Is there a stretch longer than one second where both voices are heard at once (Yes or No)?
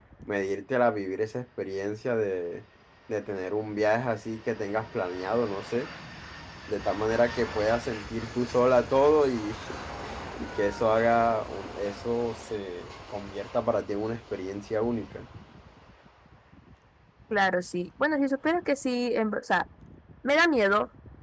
No